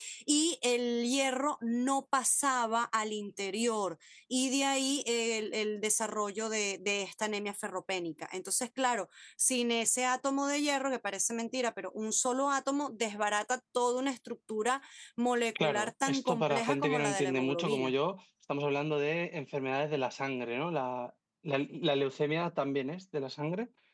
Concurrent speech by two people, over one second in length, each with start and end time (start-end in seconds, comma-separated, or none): 15.6-17.9